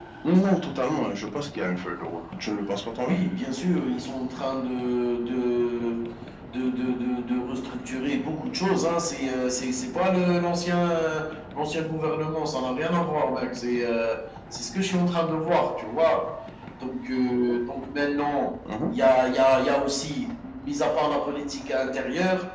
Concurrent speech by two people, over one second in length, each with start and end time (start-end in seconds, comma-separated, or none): none